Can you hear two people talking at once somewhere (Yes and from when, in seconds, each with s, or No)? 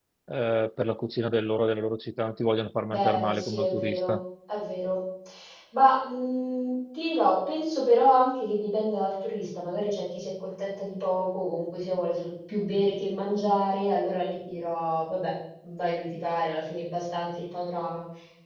Yes, from 2.9 s